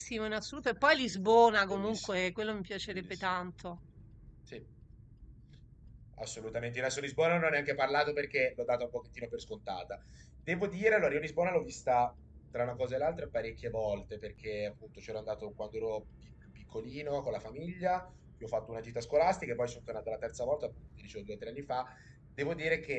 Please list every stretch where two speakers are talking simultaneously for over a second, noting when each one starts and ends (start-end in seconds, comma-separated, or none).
none